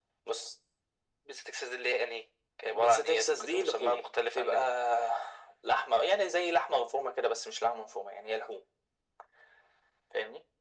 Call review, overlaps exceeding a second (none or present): present